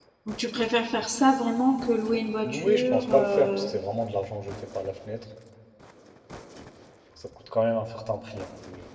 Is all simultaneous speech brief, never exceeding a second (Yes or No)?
No